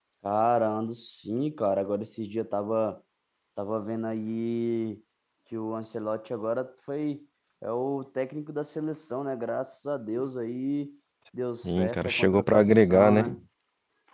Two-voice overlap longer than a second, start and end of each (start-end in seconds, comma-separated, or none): 11.6-13.2